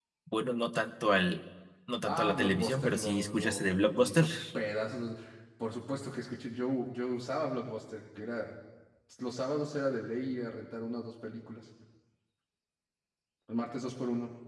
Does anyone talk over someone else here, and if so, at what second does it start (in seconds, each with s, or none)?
2.1 s